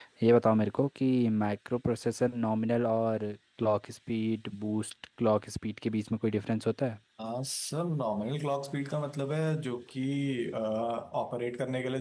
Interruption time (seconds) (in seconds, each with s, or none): none